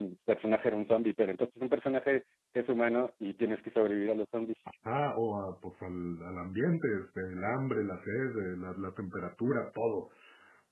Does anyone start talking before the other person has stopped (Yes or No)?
No